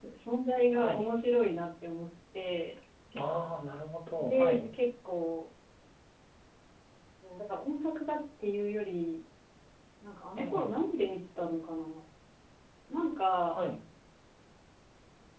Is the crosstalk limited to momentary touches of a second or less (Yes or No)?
Yes